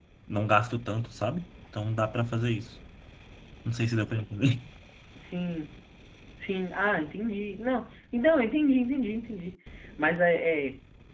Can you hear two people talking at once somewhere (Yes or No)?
No